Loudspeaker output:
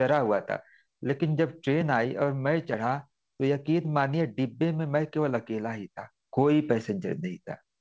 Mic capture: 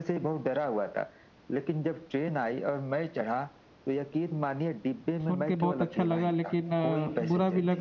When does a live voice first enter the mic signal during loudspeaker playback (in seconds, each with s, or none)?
5.2 s